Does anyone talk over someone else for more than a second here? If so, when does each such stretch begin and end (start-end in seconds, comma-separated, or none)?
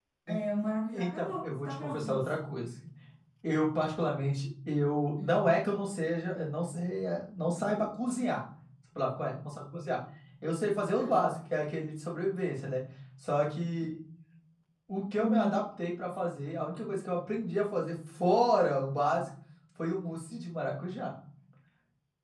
0.9-2.3